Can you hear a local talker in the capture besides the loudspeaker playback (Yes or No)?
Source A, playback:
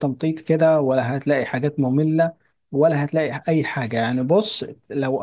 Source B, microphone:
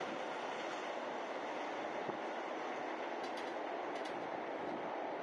No